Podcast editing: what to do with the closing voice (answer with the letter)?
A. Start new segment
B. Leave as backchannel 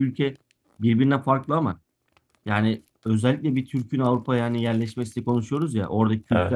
B